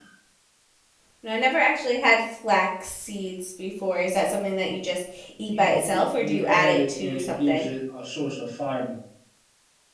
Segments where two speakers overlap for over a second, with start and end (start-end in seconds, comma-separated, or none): 5.5-7.7